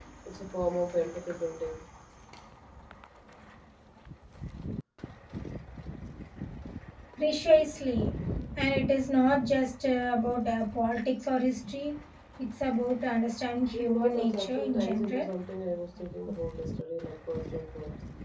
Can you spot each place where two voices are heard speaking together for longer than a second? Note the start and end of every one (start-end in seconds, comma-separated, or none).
13.7-15.3